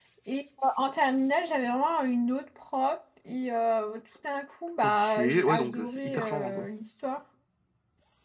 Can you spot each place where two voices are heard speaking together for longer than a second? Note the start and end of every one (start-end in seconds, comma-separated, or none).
4.8-6.7